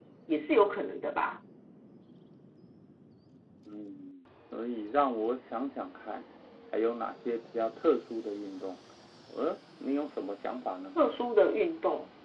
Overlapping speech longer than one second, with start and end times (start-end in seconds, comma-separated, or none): none